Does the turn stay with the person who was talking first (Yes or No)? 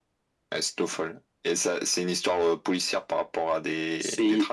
No